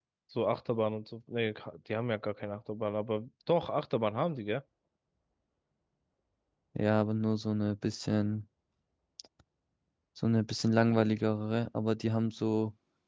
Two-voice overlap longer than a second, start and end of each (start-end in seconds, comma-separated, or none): none